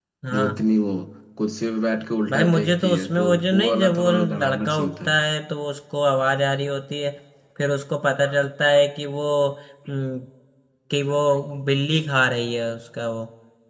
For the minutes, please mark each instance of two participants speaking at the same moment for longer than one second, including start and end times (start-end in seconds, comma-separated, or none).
2.3-5.1